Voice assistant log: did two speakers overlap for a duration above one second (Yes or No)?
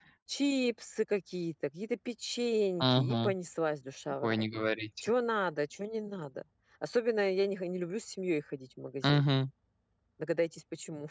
No